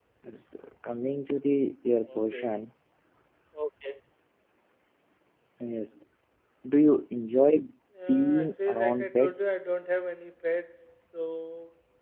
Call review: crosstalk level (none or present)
present